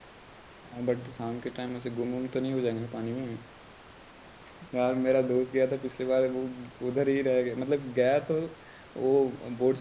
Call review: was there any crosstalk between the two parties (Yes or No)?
No